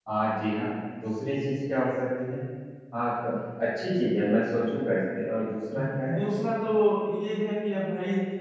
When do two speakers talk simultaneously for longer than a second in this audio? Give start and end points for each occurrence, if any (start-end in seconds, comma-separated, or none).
none